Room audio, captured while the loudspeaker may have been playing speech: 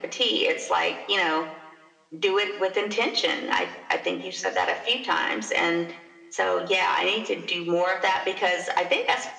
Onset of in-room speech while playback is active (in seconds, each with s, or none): none